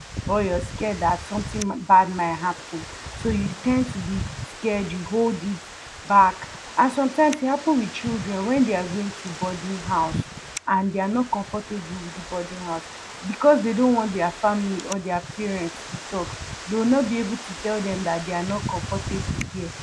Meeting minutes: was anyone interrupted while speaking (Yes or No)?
No